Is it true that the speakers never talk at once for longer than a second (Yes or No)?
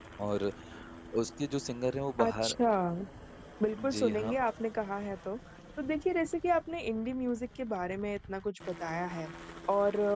Yes